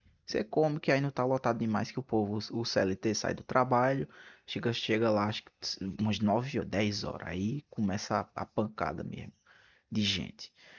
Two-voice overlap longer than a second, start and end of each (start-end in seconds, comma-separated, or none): none